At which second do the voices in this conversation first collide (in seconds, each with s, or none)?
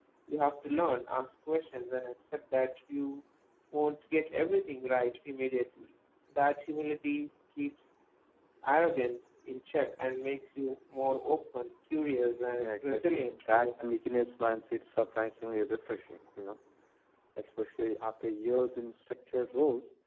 12.6 s